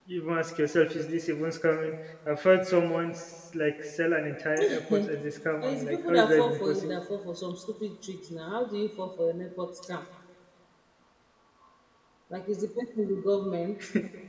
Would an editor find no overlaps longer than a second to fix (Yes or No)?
No